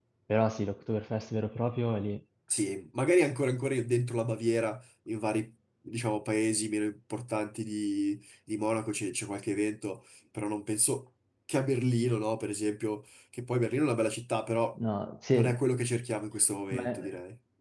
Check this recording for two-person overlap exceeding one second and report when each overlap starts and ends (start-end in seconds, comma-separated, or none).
none